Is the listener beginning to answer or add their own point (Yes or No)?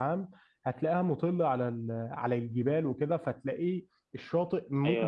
Yes